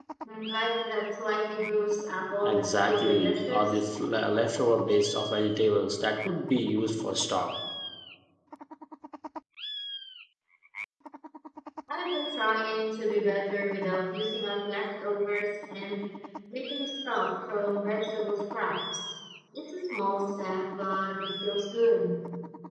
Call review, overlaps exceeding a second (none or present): present